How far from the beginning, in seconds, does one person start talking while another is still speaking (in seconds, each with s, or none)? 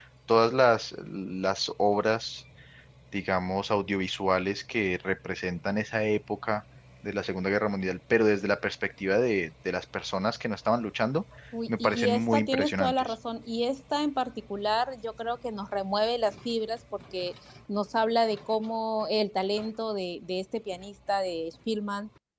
11.7 s